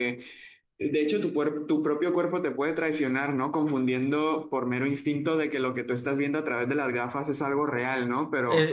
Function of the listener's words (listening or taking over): taking over